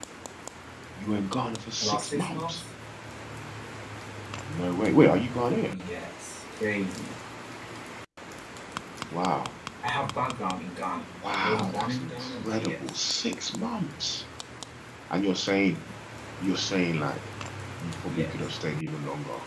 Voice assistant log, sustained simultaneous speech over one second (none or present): present